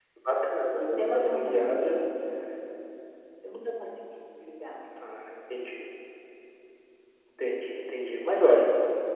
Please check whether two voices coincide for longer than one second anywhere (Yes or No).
Yes